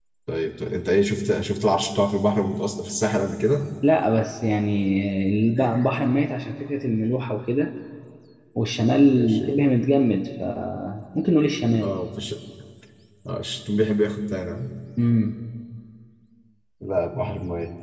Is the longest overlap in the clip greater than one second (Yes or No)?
No